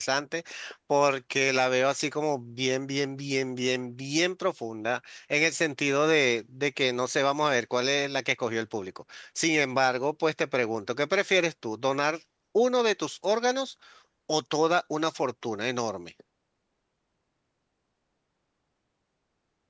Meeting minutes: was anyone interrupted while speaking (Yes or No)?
No